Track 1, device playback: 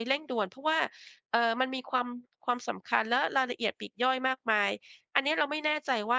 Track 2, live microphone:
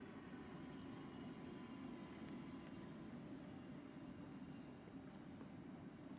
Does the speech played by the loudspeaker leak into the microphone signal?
No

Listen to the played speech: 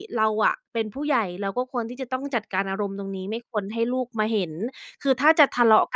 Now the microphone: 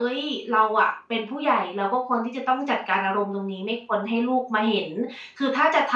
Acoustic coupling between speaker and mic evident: Yes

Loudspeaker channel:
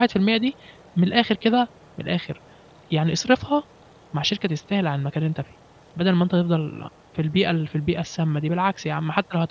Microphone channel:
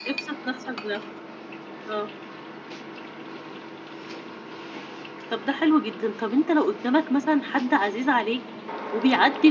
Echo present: No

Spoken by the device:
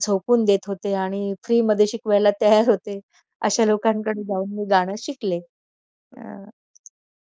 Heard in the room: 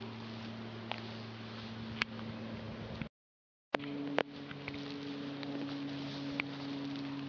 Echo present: No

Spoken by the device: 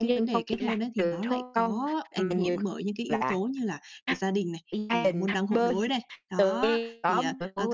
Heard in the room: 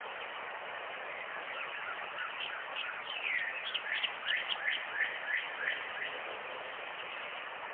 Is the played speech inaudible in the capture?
Yes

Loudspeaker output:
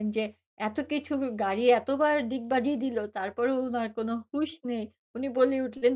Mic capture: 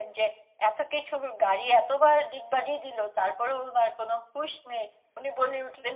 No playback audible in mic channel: No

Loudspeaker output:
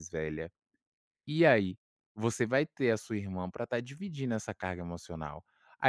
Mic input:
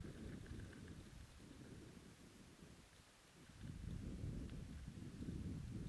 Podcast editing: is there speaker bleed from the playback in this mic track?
No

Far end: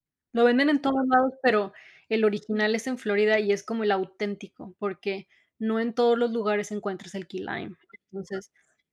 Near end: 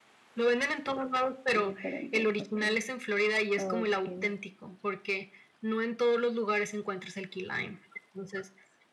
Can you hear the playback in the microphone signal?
Yes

